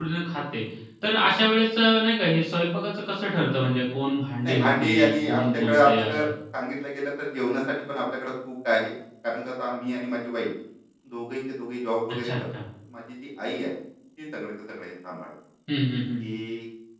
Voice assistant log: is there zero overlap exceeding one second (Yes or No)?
No